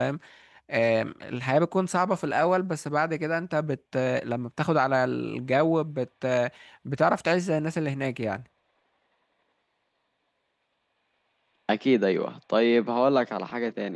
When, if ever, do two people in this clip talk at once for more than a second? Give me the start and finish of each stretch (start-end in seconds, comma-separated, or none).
none